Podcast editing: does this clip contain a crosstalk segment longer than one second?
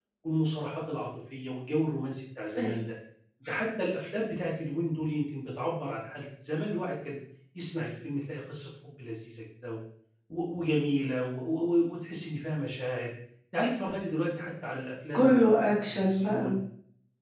Yes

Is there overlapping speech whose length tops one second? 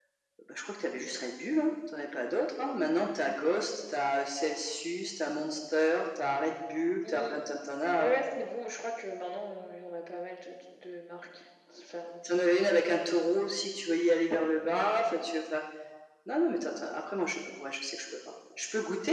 No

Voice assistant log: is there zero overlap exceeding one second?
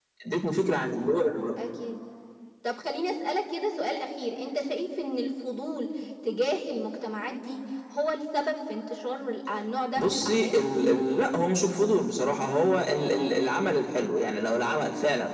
Yes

